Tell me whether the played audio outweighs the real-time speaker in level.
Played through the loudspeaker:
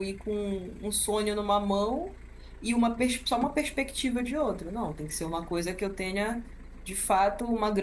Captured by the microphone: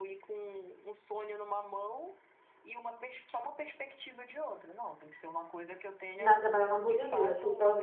No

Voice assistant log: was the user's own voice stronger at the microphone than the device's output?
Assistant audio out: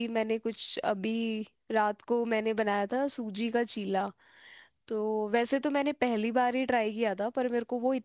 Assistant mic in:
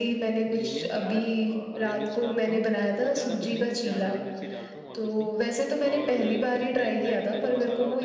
No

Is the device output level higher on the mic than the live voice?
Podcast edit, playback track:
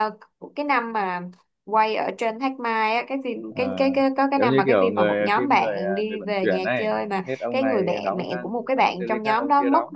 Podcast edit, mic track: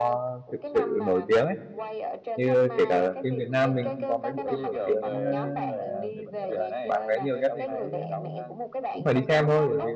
No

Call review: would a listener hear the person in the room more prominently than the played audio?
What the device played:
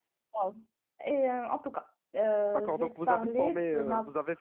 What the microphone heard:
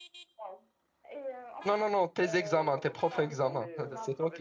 Yes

